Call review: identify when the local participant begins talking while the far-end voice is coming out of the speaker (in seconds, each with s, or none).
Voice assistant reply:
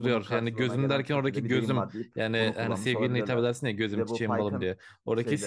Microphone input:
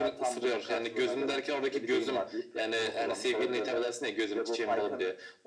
none